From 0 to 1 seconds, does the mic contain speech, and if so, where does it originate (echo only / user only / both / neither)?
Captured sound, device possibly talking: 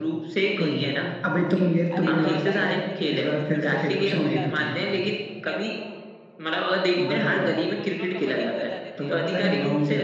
echo only